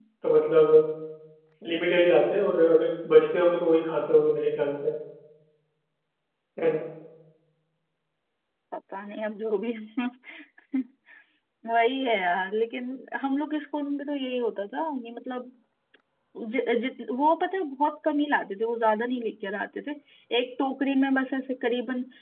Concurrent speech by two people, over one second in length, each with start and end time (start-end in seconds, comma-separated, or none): none